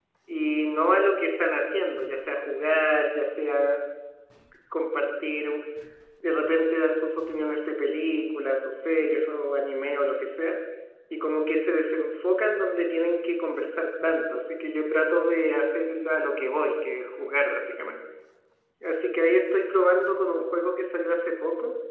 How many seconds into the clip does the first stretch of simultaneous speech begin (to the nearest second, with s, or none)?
none